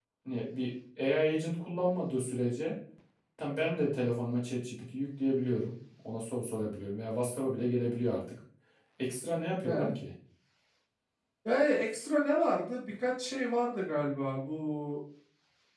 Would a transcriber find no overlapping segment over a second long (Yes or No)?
Yes